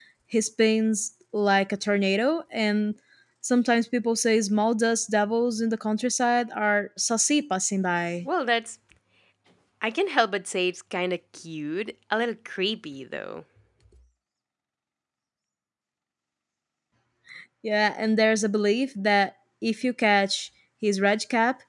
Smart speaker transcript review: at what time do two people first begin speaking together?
none

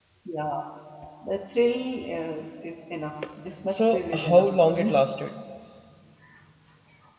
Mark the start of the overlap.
4 s

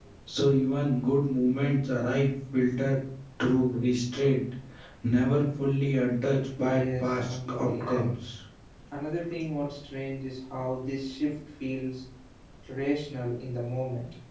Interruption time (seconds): 7 s

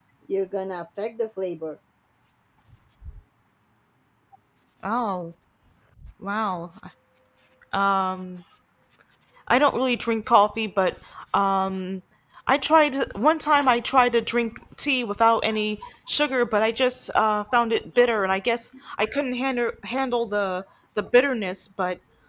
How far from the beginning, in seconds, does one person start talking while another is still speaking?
none

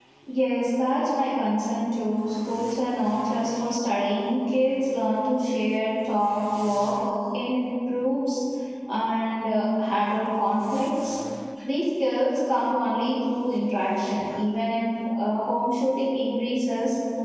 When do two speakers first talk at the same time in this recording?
none

